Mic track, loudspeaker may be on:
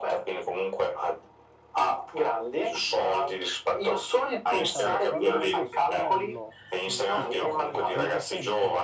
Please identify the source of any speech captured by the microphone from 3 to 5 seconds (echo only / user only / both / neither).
both